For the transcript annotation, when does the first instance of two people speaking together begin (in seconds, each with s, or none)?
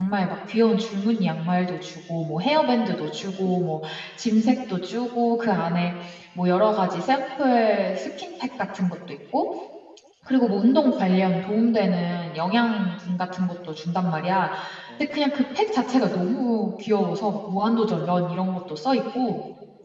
2.3 s